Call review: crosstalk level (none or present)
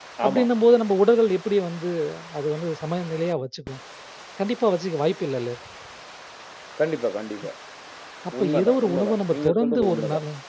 present